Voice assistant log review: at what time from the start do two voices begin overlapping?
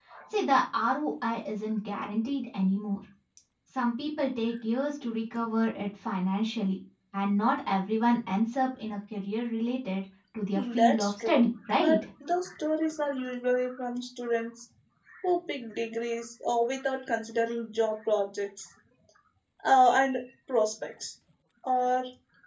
10.6 s

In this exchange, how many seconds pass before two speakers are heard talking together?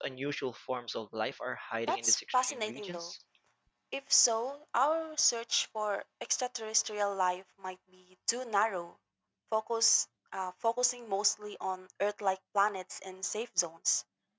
1.9 s

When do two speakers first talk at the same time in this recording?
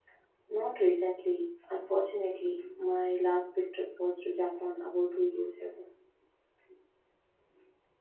none

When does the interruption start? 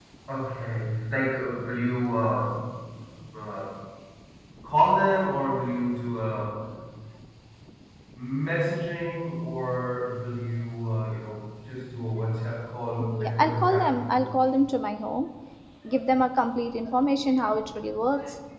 13.0 s

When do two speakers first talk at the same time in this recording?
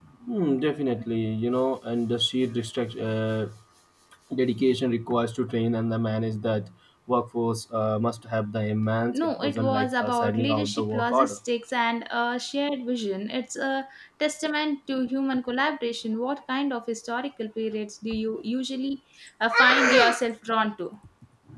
9.1 s

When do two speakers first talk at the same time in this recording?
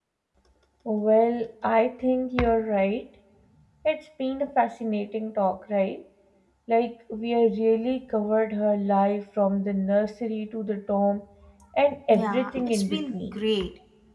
12.1 s

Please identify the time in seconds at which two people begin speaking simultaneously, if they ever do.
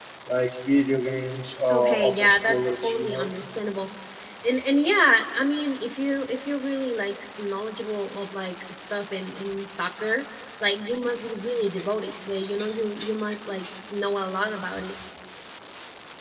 1.7 s

